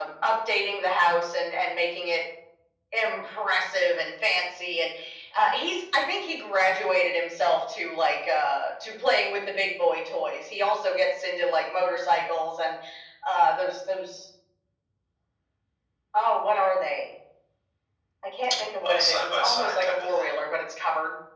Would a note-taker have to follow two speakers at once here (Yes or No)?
Yes